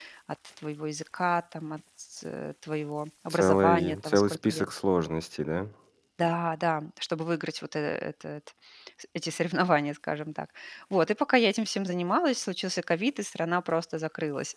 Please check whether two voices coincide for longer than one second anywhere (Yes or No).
Yes